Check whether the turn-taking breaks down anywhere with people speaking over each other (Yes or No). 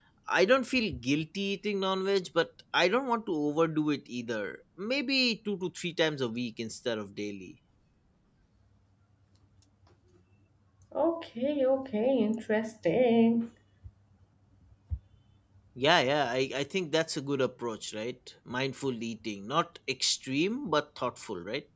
No